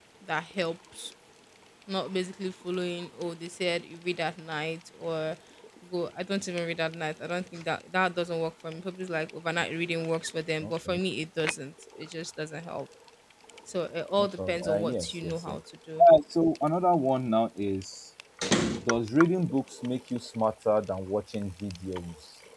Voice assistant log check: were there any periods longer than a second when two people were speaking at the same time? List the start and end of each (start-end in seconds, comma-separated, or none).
14.2-15.6